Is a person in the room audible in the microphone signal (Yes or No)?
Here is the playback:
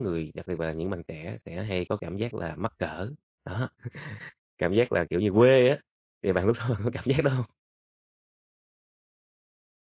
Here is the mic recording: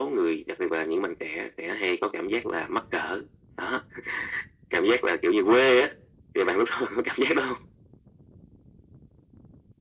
No